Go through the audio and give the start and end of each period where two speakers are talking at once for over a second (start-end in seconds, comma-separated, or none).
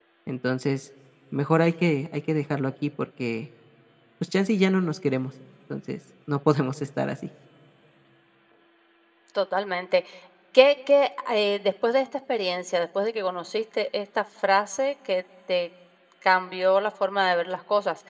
none